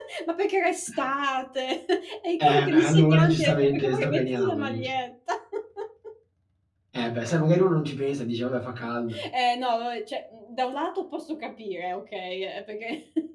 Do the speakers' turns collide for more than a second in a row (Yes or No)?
Yes